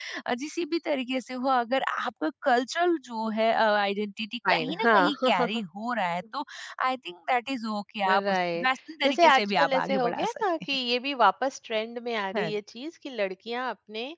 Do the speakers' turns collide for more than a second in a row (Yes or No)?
Yes